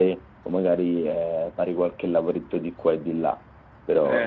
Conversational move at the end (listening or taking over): taking over